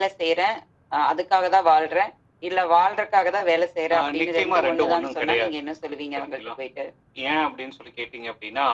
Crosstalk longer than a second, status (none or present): present